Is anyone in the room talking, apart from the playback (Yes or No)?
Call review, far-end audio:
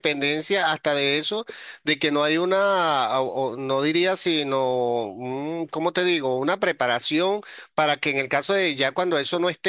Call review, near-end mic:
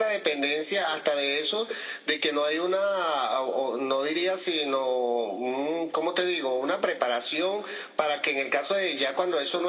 No